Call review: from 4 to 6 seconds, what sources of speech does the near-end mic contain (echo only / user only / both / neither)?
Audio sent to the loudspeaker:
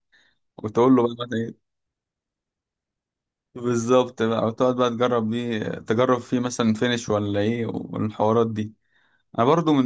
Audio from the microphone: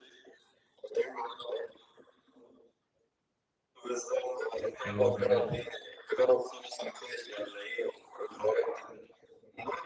both